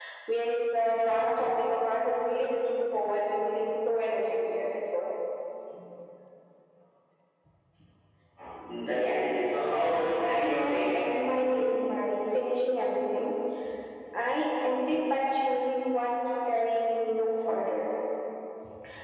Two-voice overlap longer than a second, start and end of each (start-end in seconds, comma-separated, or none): 8.9-11.0